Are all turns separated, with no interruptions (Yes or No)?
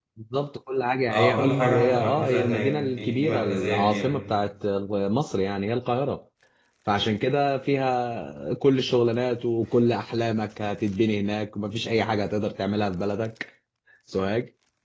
No